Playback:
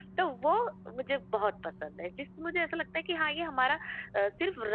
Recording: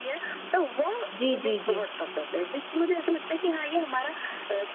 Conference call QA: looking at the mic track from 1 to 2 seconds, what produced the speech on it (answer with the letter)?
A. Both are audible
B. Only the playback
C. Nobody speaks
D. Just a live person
A